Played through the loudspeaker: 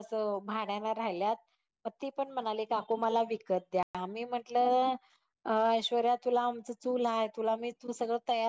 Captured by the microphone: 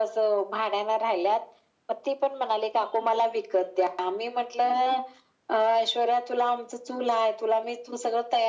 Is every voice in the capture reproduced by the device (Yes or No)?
Yes